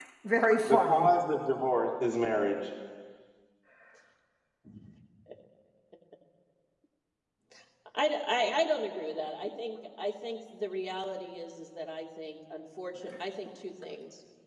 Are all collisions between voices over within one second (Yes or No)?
Yes